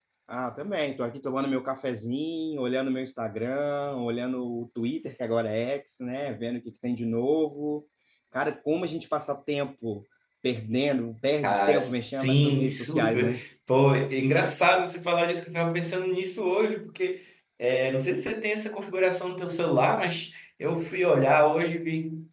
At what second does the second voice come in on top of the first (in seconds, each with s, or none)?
11.4 s